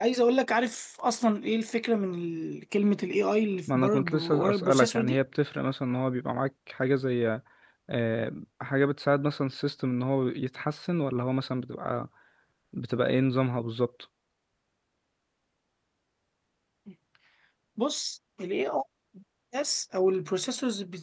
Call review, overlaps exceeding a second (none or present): present